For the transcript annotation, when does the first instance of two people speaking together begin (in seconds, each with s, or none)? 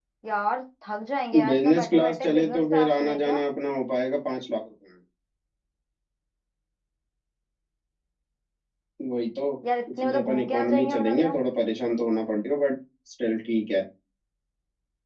1.5 s